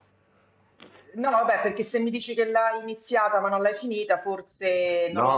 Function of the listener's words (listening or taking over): taking over